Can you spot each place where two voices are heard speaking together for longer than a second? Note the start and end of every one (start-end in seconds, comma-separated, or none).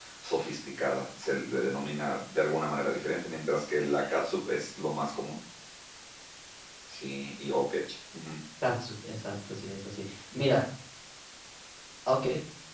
none